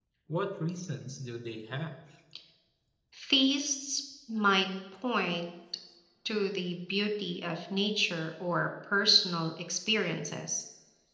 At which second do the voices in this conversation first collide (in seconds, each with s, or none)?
none